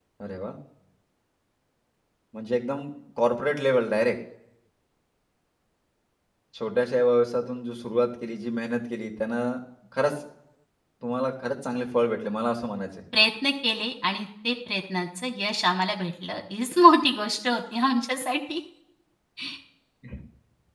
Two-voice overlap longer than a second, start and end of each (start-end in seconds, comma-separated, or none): none